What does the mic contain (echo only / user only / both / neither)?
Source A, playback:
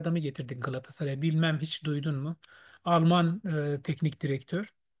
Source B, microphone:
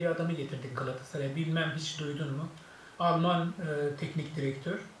echo only